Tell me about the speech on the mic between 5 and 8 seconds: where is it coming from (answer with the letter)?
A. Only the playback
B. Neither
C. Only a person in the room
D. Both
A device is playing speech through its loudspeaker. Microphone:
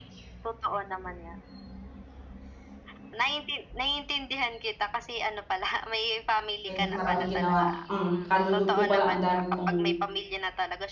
D